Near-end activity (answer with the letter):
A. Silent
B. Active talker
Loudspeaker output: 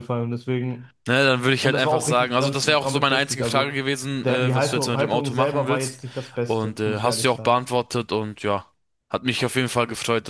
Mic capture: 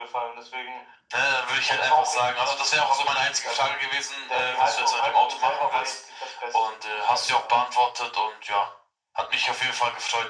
A